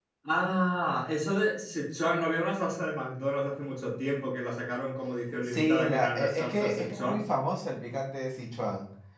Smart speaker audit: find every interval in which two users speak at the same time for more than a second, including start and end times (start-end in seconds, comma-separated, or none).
5.4-7.2